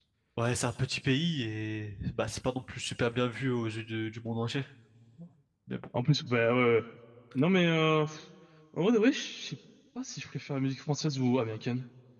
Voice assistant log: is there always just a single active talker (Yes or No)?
Yes